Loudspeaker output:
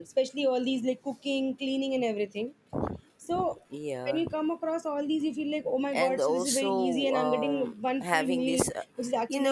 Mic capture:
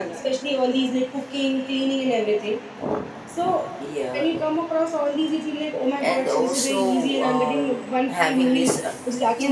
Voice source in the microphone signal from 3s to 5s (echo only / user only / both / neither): echo only